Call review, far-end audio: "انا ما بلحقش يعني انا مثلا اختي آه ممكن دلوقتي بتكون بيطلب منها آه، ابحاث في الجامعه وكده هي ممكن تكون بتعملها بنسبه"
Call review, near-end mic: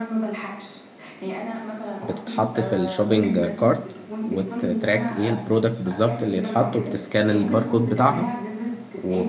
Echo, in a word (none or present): present